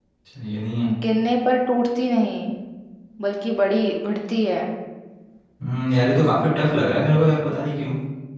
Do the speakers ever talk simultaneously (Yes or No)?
No